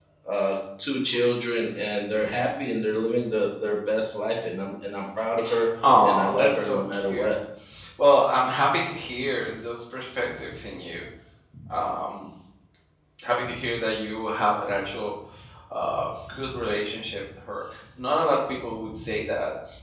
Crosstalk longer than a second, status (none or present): present